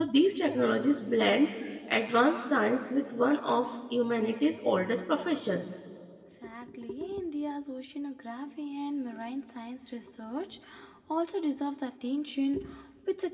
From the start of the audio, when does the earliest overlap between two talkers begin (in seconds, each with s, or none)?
none